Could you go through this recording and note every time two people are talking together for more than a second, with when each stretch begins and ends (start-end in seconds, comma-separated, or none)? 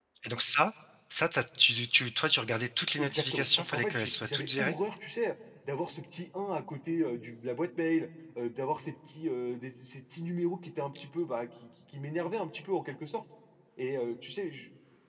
3.0-4.7